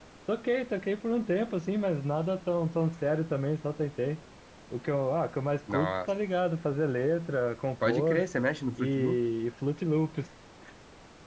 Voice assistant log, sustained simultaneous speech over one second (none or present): none